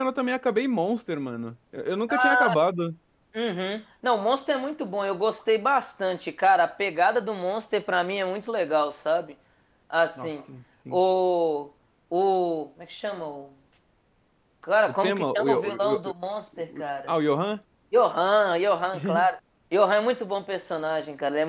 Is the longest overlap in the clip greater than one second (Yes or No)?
Yes